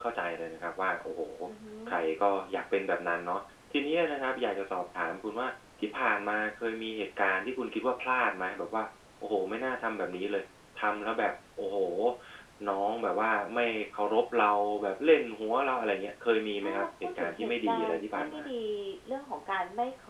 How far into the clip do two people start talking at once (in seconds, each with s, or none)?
16.6 s